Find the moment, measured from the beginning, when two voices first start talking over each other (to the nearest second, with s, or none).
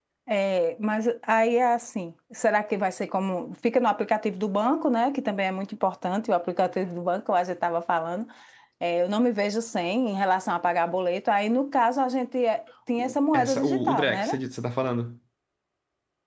13 s